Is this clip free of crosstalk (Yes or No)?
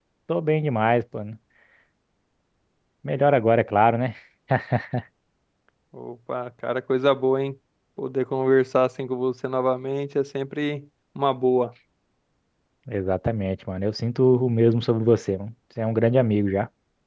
Yes